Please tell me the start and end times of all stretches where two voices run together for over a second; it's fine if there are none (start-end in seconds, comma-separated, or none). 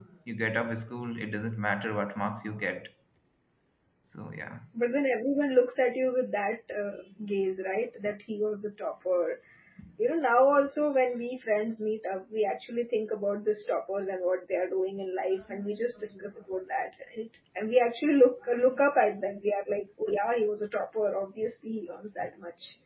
none